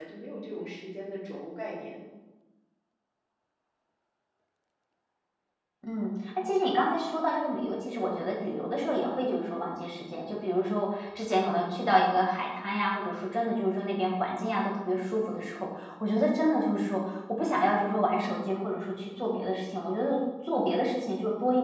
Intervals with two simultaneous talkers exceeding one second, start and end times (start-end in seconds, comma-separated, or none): none